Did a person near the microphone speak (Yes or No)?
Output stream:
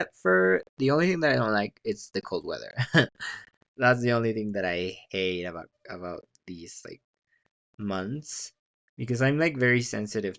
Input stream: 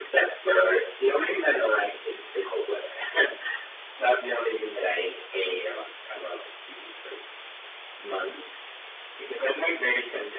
No